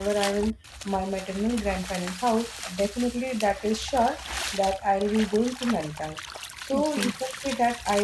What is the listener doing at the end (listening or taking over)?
listening